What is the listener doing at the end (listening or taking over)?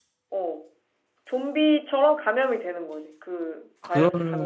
taking over